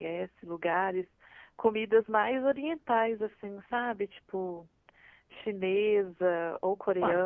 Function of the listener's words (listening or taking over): taking over